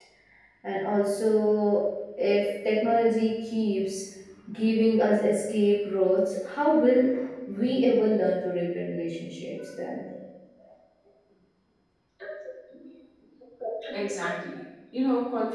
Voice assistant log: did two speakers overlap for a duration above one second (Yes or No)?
No